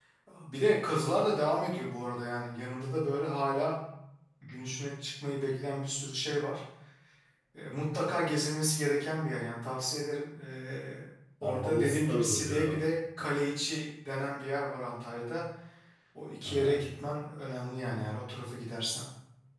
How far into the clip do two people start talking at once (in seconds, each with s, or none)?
11.4 s